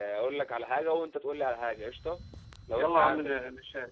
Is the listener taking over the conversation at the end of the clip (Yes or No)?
Yes